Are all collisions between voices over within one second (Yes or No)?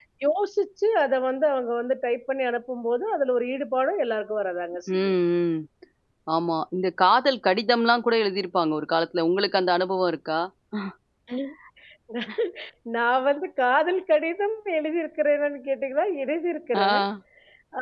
Yes